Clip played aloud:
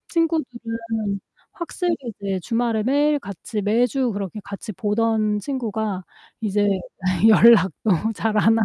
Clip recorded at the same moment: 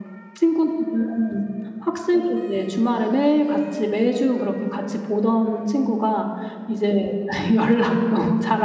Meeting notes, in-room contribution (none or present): none